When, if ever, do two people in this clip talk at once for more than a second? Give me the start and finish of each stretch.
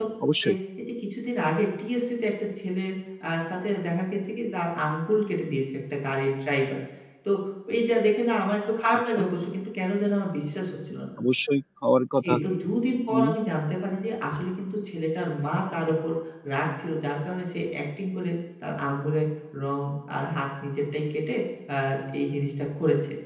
none

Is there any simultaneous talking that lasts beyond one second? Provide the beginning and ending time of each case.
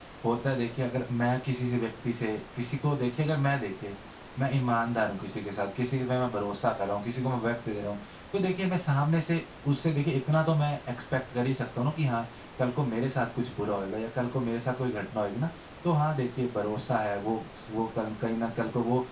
none

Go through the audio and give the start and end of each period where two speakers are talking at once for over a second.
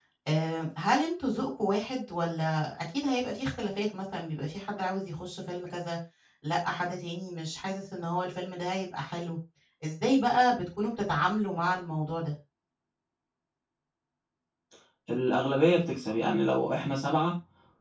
none

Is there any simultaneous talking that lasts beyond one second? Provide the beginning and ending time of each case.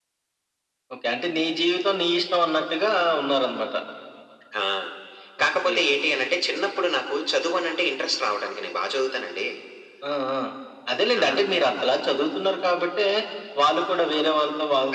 none

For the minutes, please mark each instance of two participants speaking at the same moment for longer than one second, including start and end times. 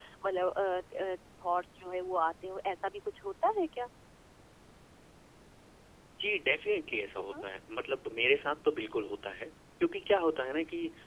none

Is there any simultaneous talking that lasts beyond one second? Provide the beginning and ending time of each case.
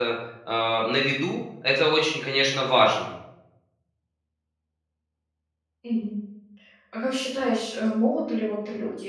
none

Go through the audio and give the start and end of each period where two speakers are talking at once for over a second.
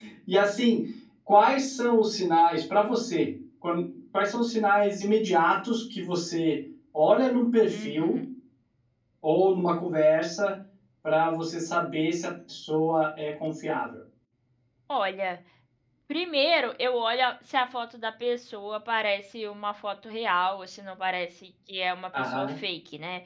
none

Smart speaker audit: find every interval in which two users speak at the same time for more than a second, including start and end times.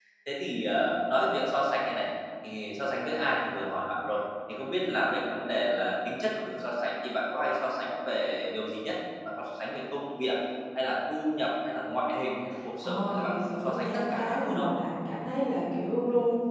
12.8-14.7

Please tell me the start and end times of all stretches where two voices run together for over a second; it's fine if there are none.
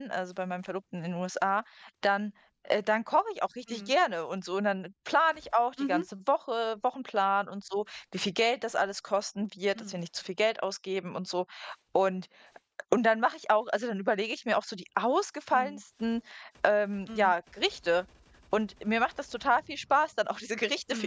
none

